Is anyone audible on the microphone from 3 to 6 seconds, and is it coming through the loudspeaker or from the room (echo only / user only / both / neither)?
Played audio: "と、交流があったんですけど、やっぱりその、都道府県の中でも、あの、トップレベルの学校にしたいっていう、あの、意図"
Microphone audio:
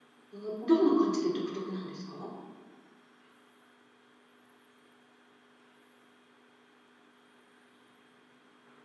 neither